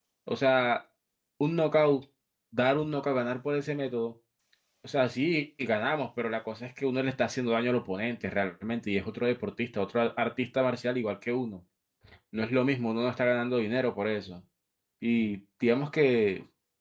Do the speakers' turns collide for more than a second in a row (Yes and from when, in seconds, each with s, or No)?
No